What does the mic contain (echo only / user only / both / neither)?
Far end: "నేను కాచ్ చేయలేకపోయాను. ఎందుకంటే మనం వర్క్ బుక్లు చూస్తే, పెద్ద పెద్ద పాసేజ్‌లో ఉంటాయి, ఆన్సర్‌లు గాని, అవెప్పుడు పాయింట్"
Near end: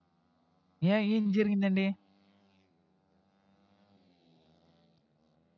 user only